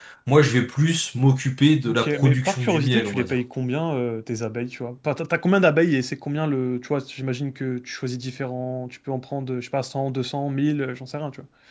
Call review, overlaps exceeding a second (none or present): present